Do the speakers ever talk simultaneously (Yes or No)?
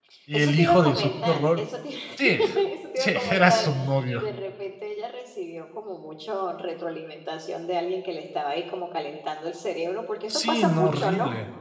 Yes